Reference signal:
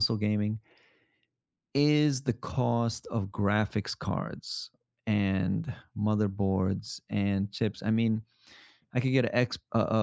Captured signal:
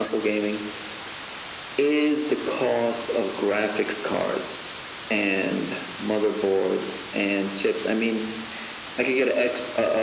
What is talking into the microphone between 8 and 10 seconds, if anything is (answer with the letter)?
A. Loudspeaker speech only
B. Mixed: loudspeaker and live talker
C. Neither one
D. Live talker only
A